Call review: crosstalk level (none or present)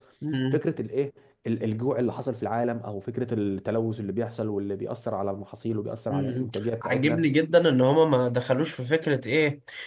present